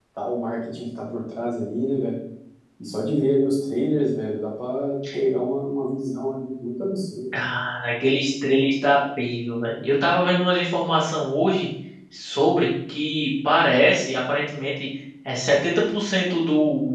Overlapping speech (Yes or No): No